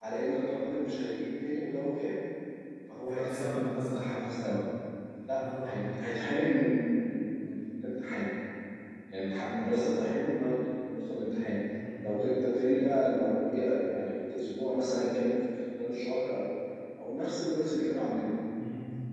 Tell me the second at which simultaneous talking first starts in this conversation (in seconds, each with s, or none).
3.1 s